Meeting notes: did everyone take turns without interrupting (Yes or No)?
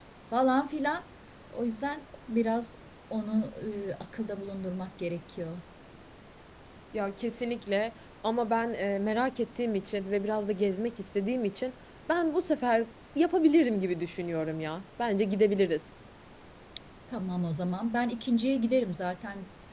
Yes